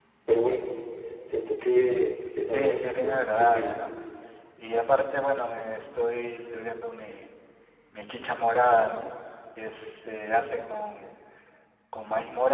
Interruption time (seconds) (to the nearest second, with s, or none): 3 s